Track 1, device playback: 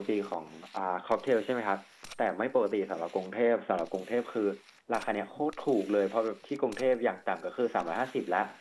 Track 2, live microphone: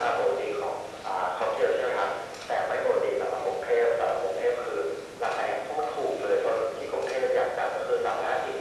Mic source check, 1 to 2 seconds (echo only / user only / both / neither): echo only